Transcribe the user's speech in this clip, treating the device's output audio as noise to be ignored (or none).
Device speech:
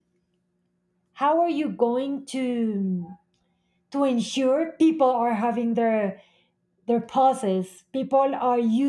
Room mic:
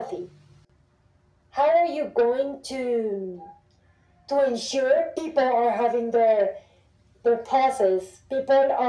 none